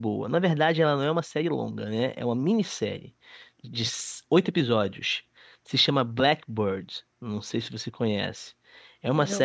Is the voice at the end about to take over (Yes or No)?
No